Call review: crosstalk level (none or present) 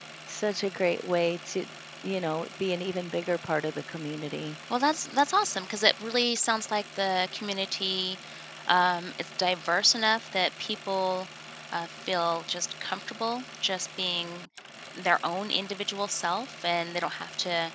none